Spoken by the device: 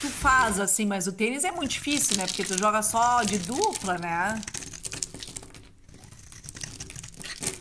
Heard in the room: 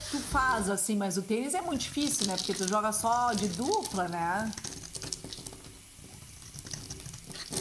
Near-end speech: none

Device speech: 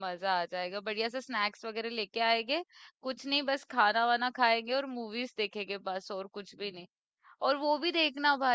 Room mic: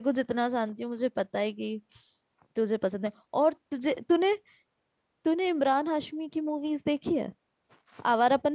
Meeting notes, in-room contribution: present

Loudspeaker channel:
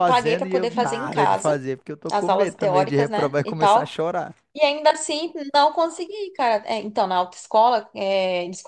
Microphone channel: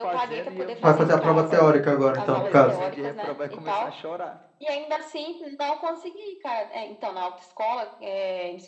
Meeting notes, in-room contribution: present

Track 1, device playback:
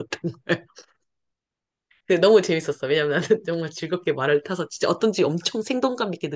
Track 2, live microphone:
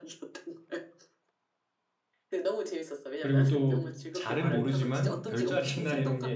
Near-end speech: present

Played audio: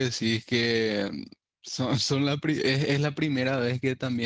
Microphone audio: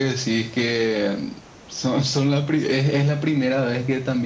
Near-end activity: none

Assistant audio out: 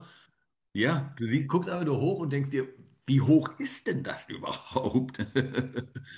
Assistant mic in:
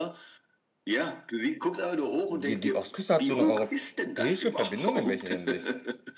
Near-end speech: present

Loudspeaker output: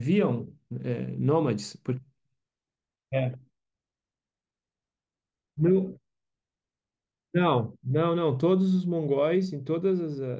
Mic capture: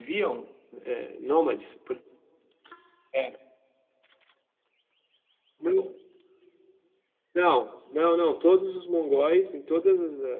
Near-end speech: none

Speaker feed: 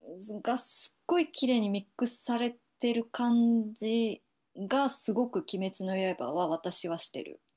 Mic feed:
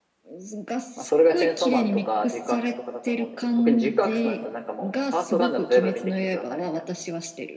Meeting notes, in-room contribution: present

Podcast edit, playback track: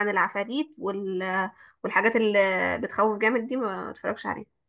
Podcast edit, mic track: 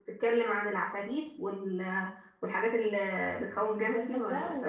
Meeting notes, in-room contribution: present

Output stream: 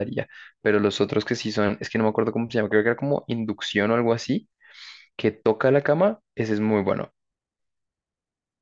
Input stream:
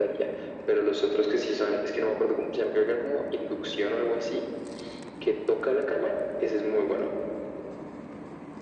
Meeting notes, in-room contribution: none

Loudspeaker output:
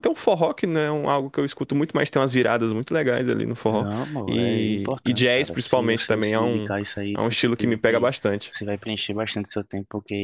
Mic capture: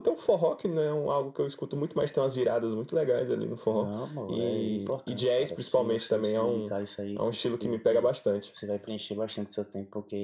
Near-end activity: none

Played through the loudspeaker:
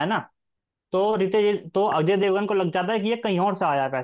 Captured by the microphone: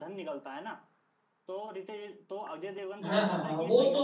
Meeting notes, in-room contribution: present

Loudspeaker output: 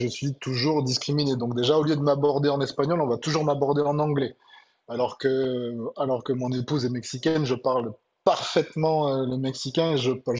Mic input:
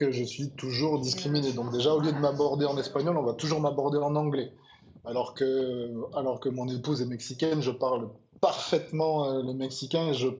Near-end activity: present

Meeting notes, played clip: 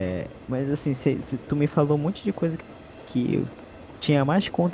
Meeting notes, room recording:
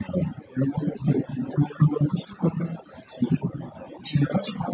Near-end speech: none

